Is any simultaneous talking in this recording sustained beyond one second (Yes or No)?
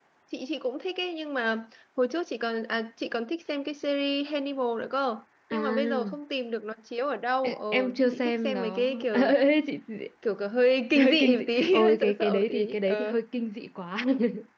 Yes